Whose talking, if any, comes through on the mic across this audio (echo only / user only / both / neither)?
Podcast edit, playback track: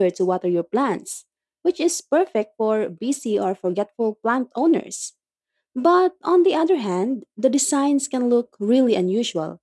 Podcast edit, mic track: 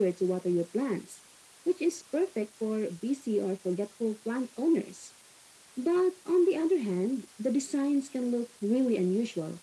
echo only